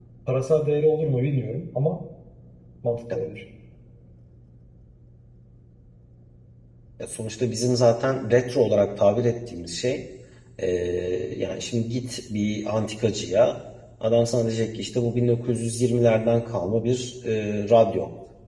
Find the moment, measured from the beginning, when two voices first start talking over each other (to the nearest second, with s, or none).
none